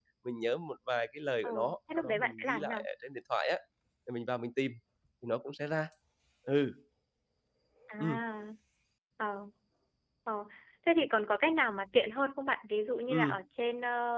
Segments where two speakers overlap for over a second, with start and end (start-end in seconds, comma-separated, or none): 1.4-2.8